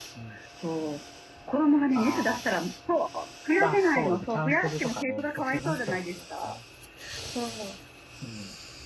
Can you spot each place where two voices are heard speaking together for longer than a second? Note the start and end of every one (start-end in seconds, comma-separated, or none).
3.6-6.6